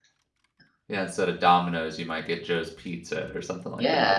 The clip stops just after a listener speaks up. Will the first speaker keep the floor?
No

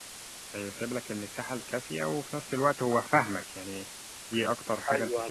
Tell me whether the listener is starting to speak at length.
Yes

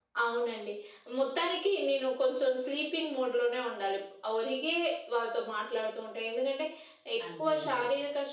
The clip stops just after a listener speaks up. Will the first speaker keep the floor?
Yes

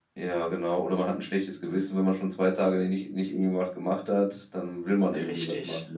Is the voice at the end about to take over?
Yes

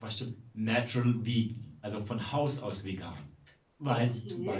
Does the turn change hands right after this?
No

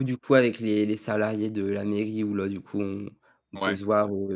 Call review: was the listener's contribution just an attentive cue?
Yes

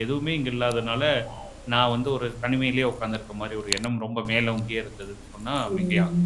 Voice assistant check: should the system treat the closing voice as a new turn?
Yes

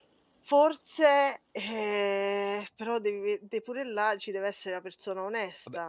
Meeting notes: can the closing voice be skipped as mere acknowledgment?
No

